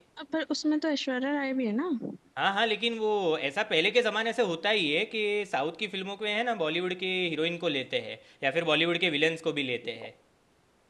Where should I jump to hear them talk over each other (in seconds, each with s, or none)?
none